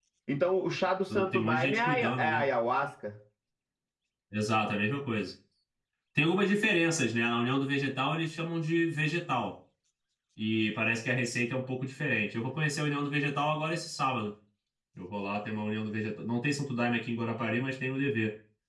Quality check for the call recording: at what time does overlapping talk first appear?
1.1 s

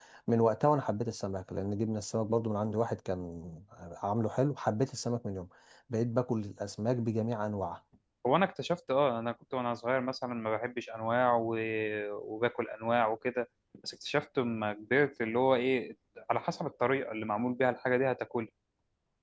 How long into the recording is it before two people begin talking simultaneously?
none

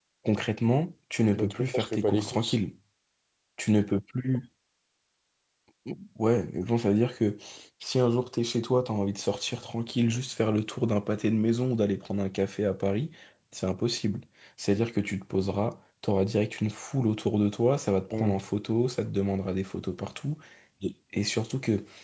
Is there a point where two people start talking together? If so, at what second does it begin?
1.3 s

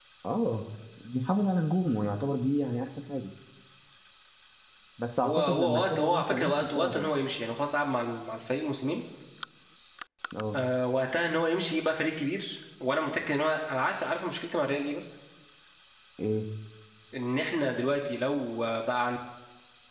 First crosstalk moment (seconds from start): 5.2 s

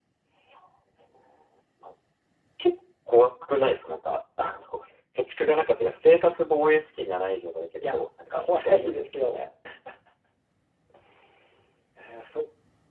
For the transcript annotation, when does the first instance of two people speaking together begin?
7.8 s

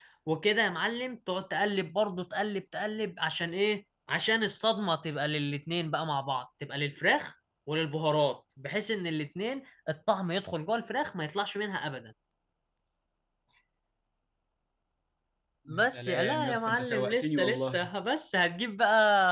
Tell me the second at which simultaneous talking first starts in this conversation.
15.7 s

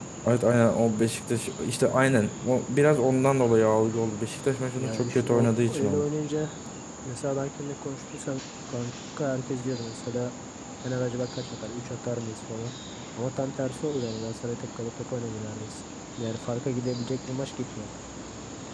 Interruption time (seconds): 4.8 s

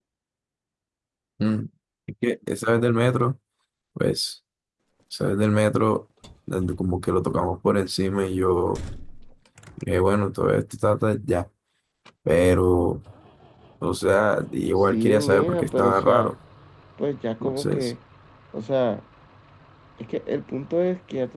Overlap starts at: 14.9 s

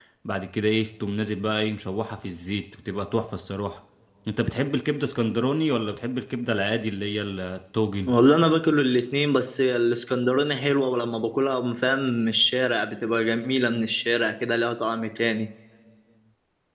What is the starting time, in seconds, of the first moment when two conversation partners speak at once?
none

